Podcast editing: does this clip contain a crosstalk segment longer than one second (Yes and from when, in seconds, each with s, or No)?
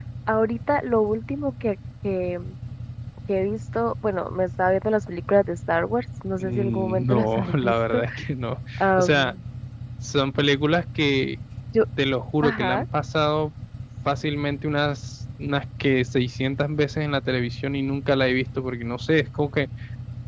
Yes, from 6.4 s